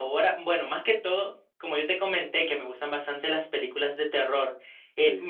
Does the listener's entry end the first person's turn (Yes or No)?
No